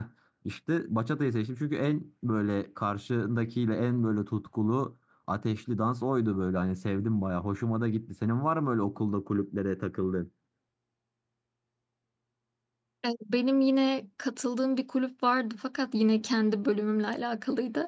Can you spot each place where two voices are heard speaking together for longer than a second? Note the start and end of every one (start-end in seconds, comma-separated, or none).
none